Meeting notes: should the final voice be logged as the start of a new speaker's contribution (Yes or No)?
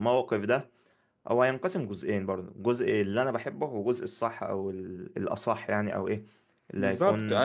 No